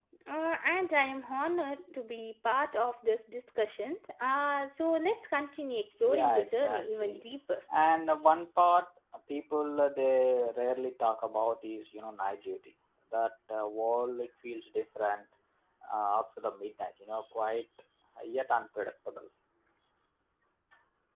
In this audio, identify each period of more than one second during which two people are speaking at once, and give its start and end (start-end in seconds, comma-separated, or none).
6.0-7.2